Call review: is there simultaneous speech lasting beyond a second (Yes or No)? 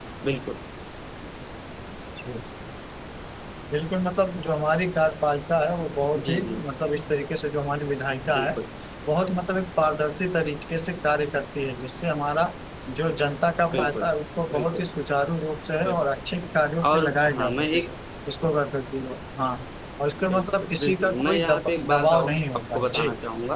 Yes